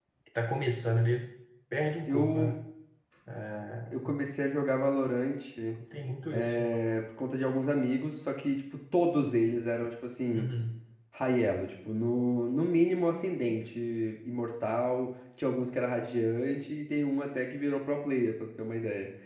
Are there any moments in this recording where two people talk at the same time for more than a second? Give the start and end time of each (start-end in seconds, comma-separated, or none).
none